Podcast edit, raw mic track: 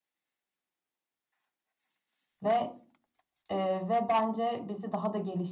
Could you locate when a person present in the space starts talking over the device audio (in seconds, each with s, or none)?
2.4 s